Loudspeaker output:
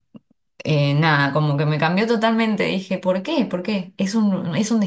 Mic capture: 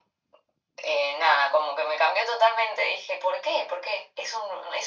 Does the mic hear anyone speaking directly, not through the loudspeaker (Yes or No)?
No